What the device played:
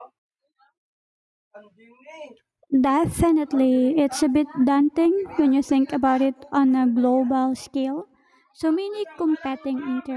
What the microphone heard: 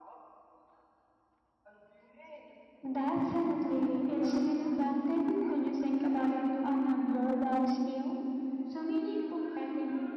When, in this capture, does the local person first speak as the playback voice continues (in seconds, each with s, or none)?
none